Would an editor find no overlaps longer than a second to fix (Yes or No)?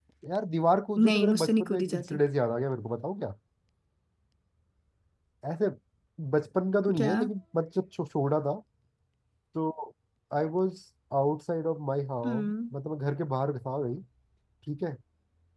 No